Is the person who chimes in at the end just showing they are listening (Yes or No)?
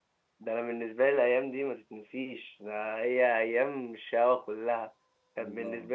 Yes